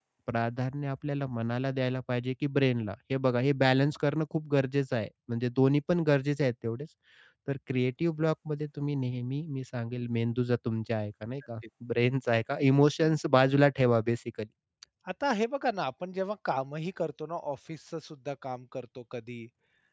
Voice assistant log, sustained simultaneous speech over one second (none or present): none